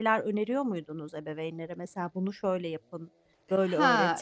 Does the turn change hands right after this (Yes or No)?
Yes